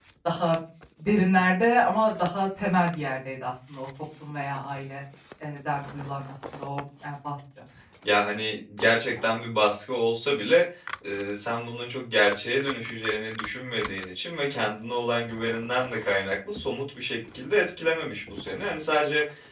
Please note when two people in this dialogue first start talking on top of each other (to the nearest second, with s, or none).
none